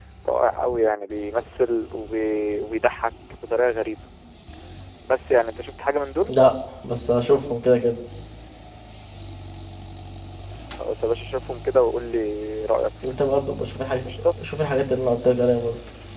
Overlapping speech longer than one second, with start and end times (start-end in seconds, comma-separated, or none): none